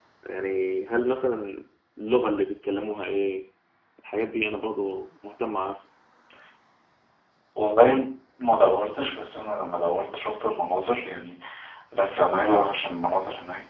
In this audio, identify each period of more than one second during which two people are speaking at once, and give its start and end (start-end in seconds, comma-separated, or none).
none